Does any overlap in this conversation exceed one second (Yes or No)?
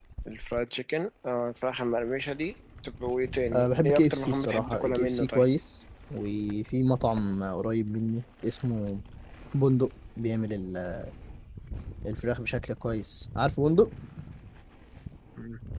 Yes